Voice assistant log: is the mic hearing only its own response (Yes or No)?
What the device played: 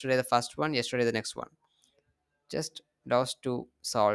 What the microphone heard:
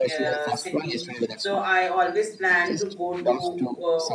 No